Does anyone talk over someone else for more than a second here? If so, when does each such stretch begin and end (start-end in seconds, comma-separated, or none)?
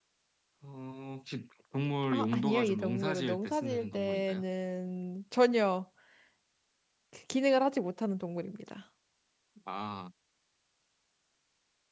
2.1-4.4